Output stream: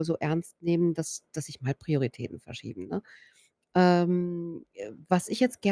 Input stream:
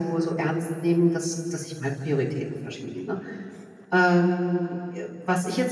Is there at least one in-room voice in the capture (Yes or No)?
No